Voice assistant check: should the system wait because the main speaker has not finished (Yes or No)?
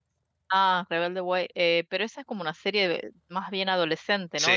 No